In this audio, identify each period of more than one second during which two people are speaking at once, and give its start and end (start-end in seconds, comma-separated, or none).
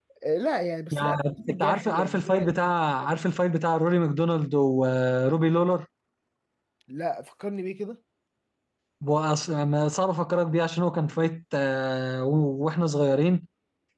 0.9-2.5